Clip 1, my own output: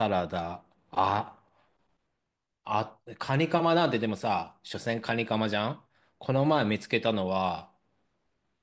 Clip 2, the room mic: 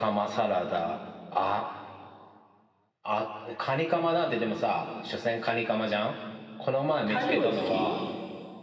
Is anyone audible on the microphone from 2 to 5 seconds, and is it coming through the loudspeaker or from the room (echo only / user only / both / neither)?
echo only